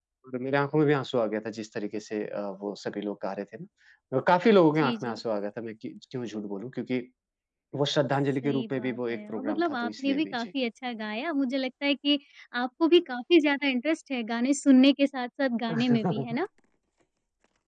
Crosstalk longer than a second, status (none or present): present